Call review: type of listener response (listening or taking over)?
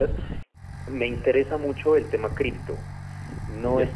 listening